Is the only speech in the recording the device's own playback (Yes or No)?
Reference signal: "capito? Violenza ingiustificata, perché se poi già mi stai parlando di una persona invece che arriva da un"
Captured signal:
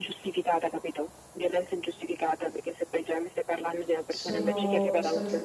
No